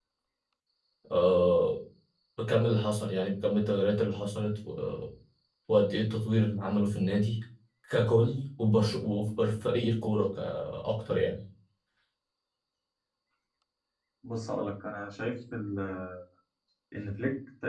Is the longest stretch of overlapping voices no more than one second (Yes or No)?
Yes